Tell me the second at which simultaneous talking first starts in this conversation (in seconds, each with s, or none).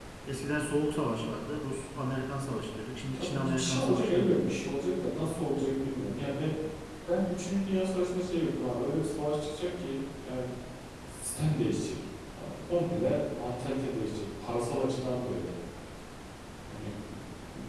3.1 s